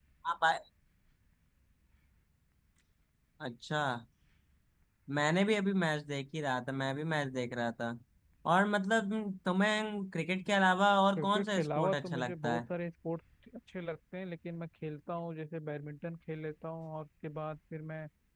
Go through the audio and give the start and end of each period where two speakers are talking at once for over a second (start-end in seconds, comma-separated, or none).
11.2-12.6